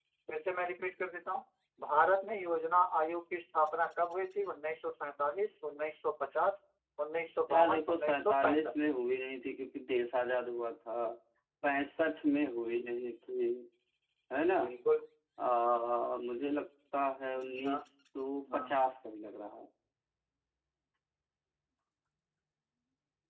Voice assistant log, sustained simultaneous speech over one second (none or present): present